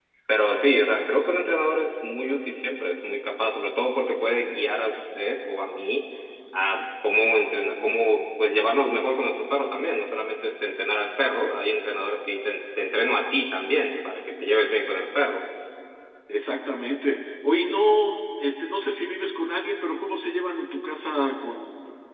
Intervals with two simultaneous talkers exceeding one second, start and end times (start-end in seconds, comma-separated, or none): none